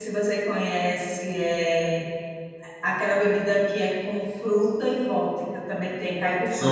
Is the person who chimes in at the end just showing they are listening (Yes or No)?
No